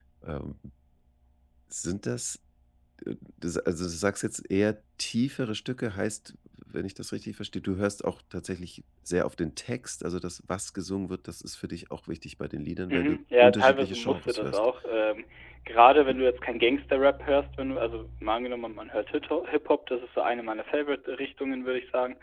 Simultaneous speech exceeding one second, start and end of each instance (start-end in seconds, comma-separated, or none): 12.9-14.6